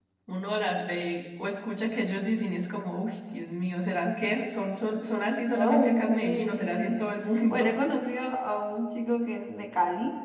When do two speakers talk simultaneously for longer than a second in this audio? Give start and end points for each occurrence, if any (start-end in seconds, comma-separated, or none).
5.5-7.0